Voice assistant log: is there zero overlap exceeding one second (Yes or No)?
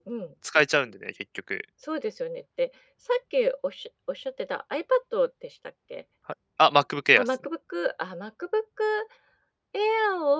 Yes